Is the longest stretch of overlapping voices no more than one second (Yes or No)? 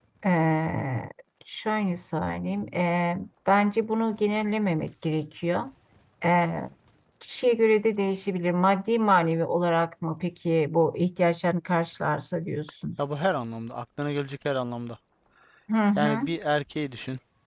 Yes